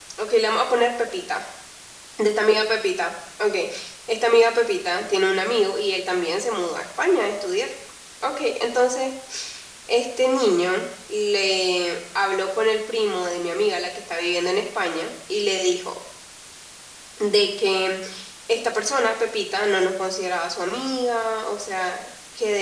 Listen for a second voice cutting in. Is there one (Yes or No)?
No